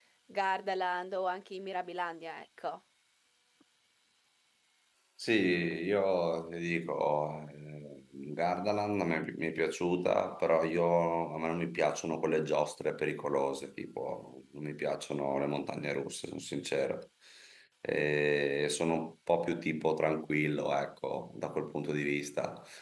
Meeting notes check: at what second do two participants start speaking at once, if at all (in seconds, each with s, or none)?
none